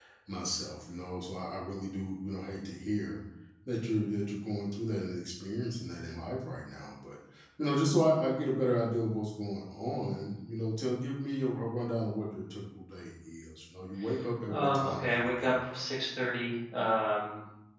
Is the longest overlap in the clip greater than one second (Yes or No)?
Yes